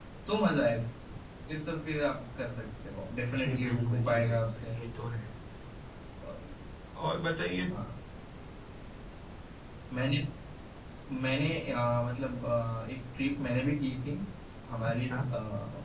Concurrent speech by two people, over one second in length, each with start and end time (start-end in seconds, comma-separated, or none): 3.4-4.7